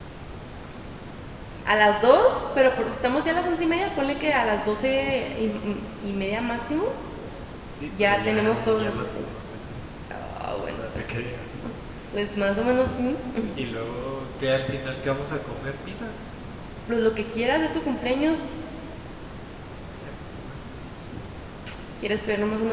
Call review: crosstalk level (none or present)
present